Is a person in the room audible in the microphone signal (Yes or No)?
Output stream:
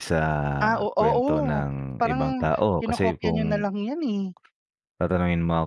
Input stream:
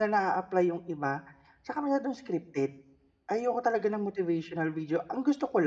Yes